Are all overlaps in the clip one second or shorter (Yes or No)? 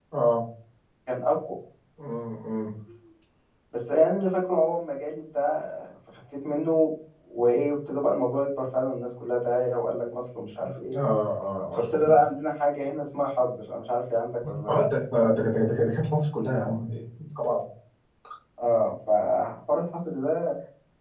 Yes